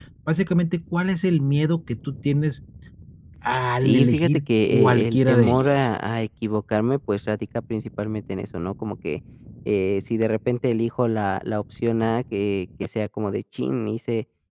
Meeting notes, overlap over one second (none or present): present